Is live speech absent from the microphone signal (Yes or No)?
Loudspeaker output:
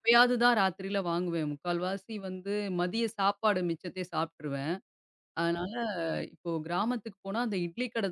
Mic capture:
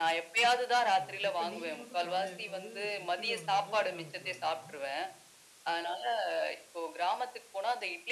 No